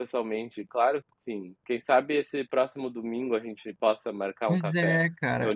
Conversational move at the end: taking over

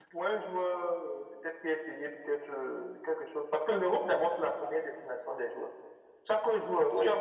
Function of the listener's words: listening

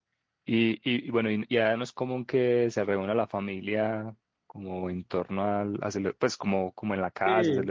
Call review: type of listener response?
taking over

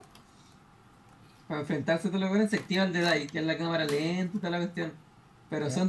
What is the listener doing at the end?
listening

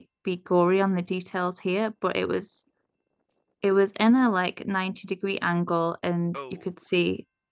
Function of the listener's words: listening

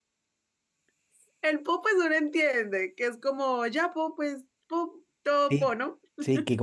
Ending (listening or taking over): taking over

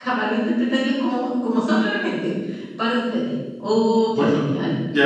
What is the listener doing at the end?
taking over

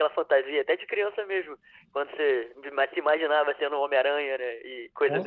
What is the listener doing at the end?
taking over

